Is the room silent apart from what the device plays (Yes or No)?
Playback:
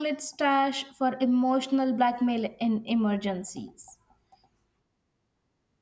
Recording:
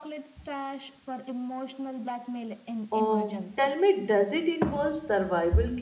No